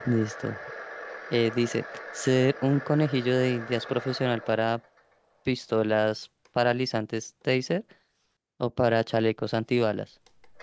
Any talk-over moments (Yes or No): No